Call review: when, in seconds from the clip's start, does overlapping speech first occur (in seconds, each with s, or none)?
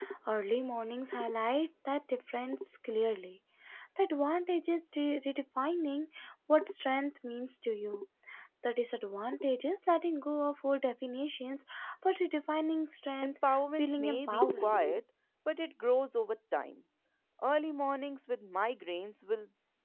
13.2 s